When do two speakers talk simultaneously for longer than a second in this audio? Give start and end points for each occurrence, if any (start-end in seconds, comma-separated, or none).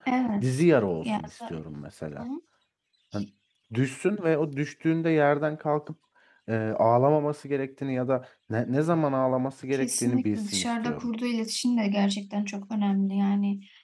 9.7-11.1